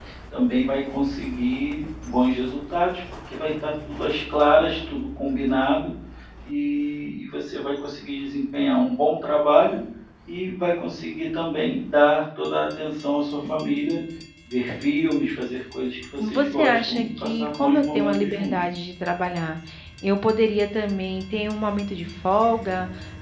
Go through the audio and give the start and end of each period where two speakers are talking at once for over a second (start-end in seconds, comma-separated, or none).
16.2-18.5